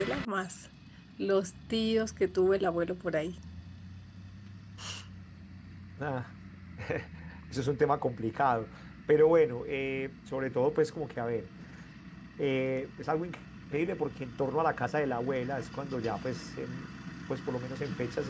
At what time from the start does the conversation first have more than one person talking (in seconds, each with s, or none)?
none